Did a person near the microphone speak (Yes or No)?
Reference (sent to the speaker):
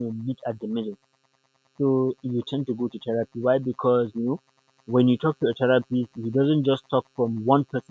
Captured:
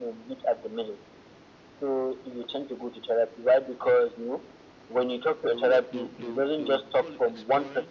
Yes